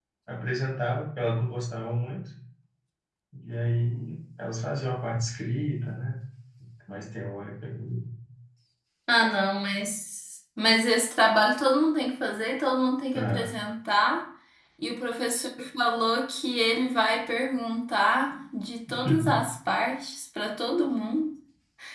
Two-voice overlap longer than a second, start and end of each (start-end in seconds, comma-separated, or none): none